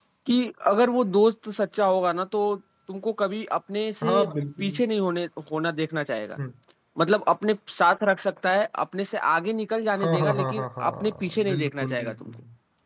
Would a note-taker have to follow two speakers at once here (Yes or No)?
Yes